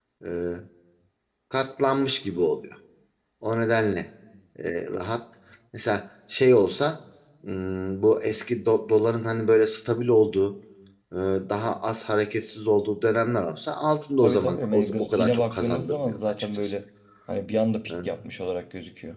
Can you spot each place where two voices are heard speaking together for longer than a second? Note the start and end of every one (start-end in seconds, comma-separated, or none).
14.2-16.7